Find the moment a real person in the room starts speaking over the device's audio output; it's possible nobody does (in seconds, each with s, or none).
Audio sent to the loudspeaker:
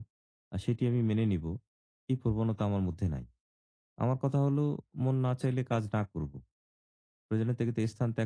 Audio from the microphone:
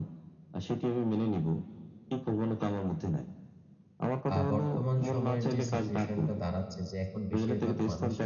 4.3 s